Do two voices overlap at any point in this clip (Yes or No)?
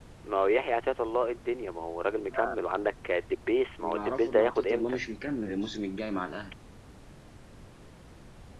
Yes